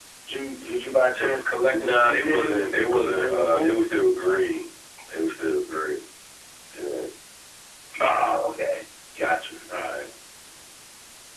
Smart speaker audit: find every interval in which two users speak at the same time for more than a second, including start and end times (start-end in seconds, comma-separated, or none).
1.7-3.9